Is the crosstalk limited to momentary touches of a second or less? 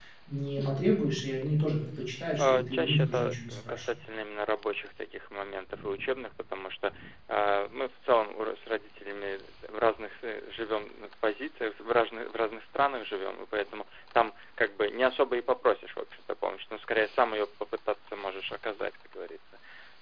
No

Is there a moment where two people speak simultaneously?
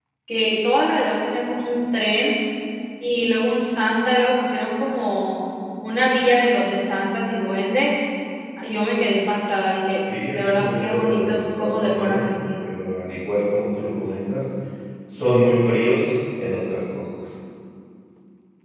Yes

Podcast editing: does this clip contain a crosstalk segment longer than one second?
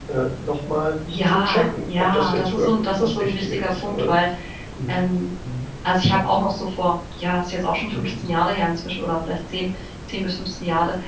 Yes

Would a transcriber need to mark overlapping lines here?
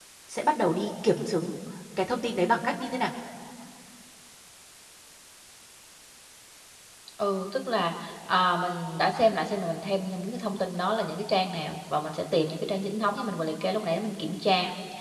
No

